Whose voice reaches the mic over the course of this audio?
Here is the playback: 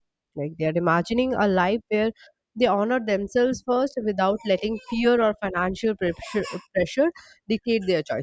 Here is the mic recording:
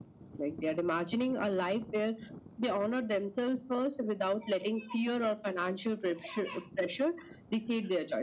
echo only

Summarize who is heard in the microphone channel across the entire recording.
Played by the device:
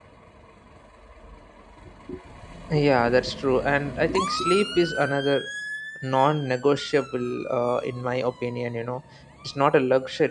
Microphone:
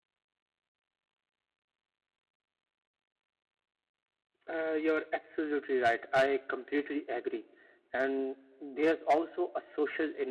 user only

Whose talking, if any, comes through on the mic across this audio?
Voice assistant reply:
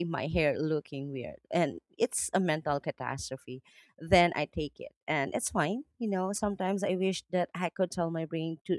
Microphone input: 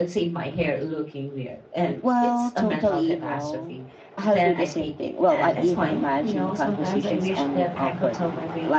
both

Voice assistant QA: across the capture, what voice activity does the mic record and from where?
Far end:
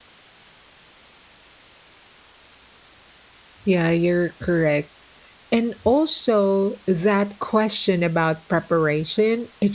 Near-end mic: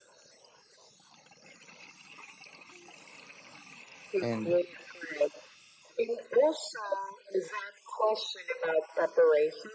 both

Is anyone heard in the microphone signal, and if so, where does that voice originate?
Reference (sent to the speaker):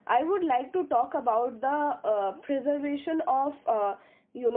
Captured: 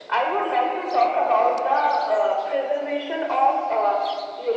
echo only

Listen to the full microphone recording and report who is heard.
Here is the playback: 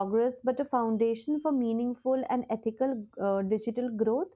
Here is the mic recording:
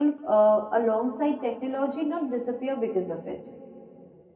user only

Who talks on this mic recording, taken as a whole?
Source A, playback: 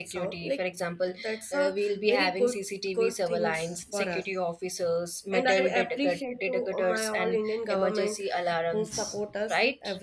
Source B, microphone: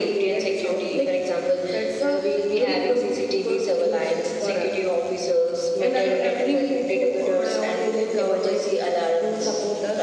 echo only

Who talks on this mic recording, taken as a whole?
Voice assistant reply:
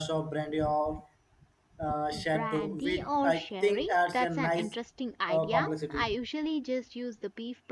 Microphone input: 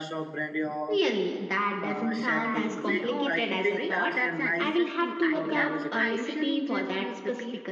both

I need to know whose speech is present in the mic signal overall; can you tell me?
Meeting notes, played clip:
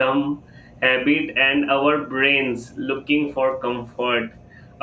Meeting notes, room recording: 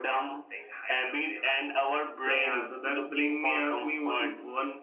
both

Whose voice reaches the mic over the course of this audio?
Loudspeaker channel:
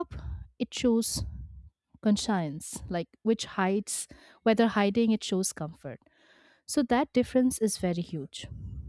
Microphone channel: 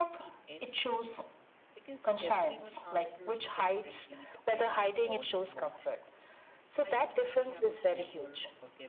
both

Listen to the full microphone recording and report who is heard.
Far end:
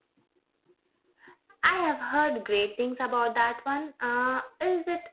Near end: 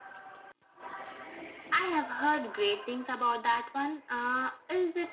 echo only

